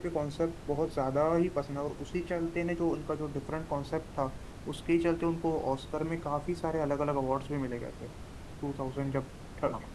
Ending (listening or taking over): listening